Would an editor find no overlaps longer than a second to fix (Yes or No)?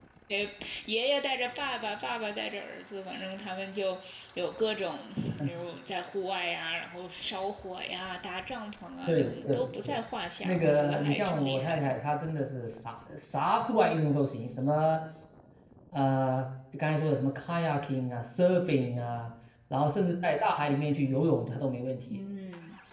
No